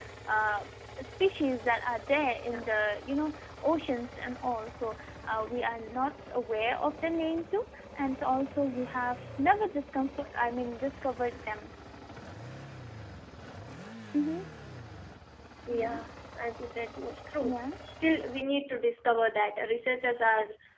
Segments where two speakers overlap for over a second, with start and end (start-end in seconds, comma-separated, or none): none